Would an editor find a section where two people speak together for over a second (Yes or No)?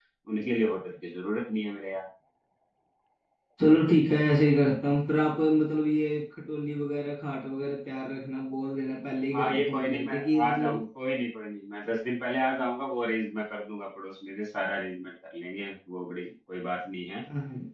Yes